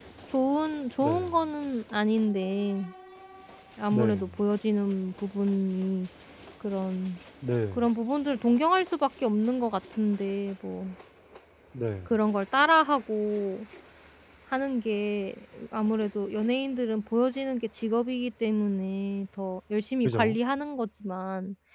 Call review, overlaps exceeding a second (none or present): none